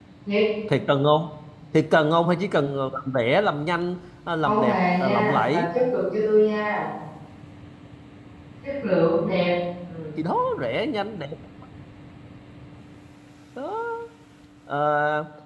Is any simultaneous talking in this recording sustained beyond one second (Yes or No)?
Yes